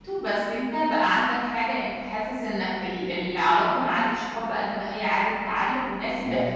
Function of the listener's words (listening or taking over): taking over